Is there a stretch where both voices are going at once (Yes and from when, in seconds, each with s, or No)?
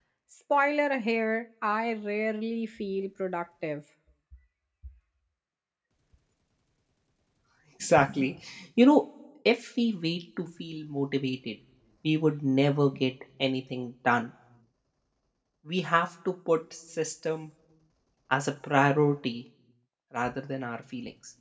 No